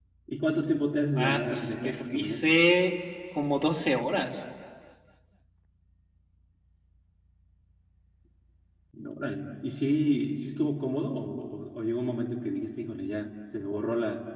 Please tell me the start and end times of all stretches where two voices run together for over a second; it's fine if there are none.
1.2-2.5

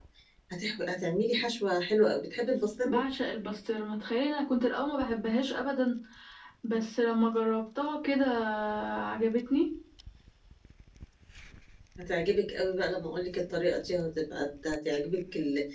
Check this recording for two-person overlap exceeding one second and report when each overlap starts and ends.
none

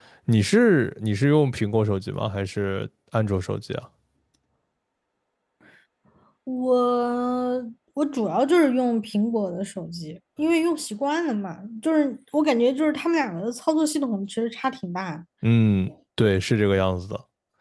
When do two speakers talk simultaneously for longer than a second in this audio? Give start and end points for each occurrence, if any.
none

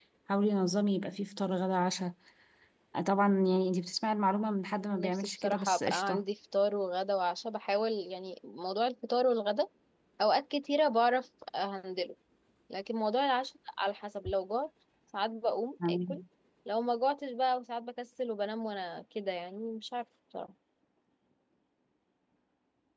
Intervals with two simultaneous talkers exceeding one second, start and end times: 4.8-6.2

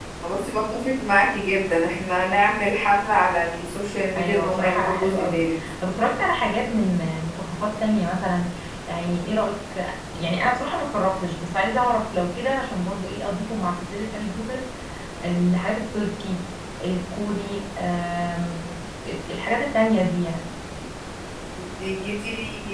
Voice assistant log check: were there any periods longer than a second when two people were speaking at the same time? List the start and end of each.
4.2-5.5

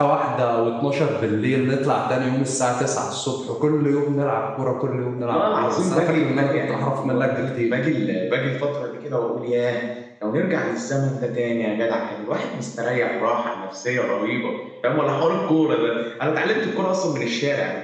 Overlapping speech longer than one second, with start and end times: 5.2-7.7

